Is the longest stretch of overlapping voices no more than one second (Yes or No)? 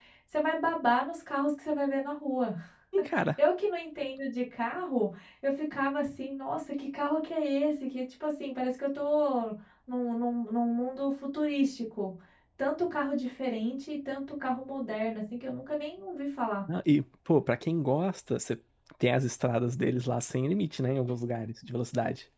Yes